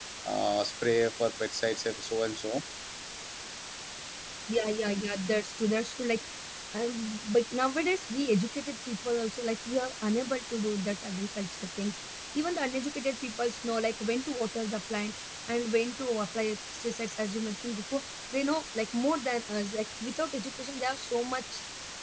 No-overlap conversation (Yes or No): Yes